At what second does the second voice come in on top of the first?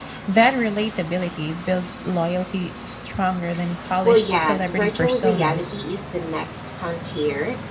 4.0 s

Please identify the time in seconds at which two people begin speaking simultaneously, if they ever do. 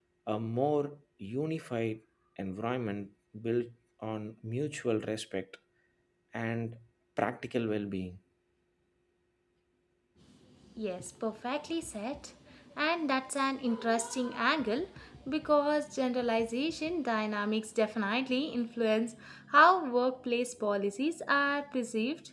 none

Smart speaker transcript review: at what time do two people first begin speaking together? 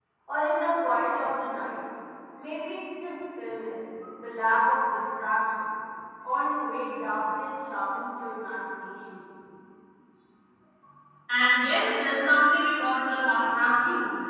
none

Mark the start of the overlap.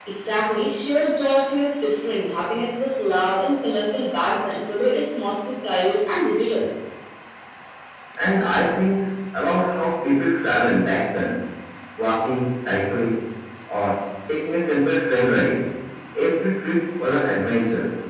none

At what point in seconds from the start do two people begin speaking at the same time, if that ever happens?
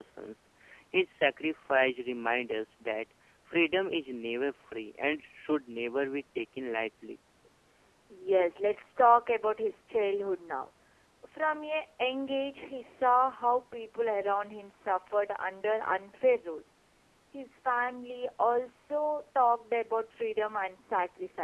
none

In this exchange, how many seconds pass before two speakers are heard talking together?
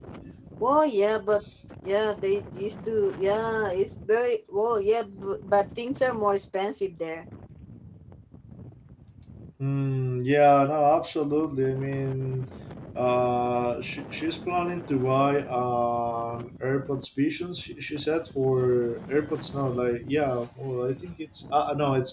none

